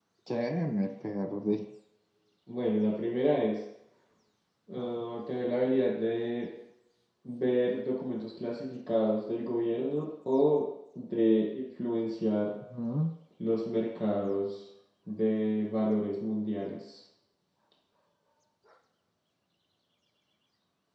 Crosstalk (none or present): none